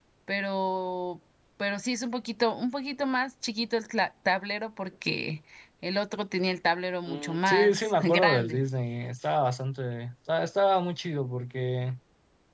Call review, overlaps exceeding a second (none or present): present